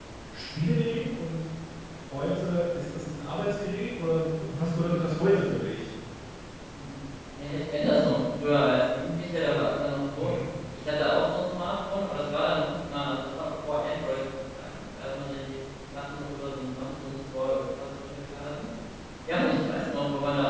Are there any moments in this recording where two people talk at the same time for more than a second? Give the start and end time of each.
none

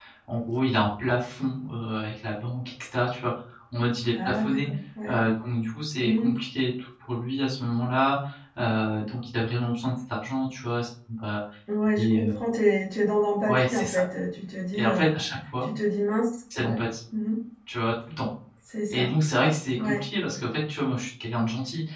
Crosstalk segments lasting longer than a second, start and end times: none

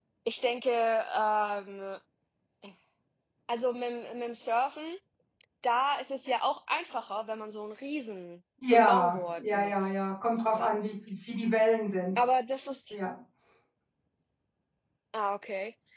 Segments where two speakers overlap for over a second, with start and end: 8.7-9.9

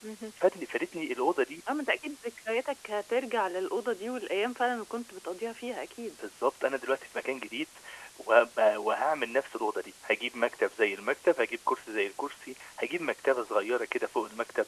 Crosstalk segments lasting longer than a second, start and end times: none

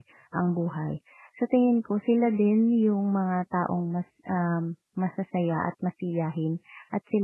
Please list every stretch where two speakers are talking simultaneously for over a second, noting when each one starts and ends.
none

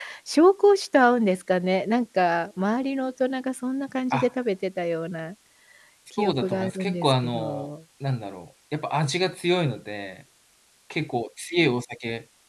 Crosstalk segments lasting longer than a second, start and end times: 6.2-7.7

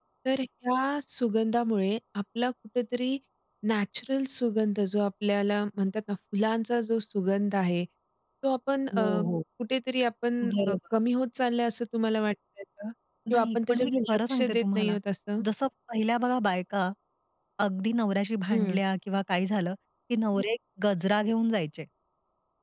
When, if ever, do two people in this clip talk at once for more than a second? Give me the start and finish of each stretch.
13.3-15.0

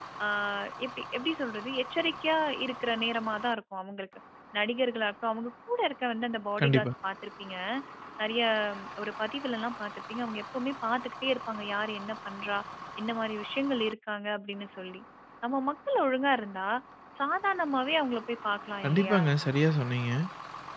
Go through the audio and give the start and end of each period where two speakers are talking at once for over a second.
none

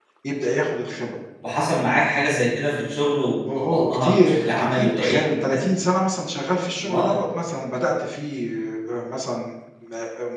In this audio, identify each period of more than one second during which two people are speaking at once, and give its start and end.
3.6-5.6

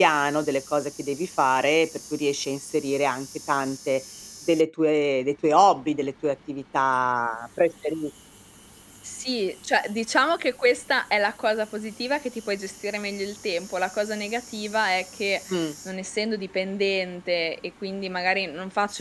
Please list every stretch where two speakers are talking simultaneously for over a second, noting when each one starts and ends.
none

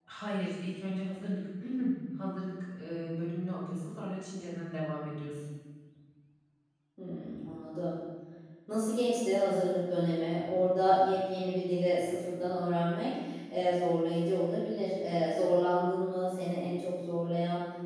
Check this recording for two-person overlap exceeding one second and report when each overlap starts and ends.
none

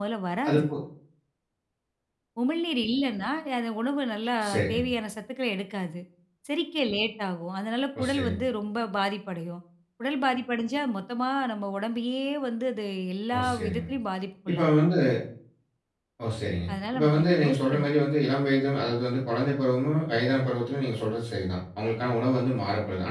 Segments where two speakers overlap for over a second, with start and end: 16.7-17.9

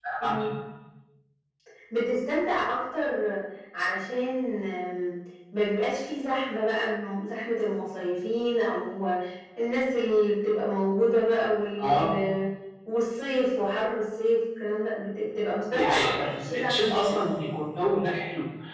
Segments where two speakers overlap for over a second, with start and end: 15.7-17.2

